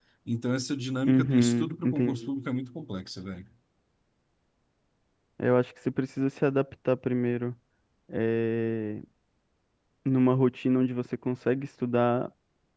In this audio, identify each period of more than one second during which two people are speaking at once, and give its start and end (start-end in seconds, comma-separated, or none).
1.1-2.3